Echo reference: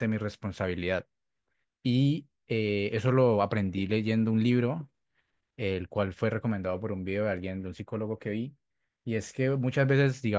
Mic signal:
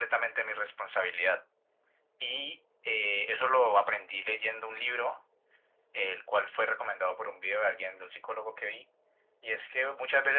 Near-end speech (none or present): none